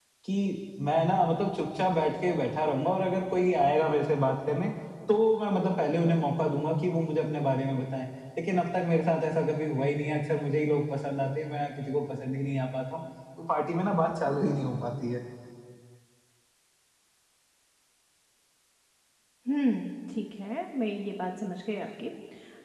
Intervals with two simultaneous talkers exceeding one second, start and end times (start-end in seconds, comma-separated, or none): none